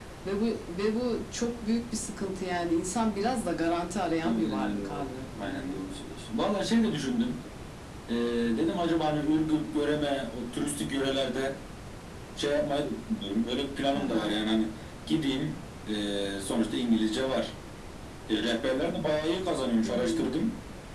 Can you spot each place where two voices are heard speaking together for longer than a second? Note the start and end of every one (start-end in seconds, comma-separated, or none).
4.2-5.8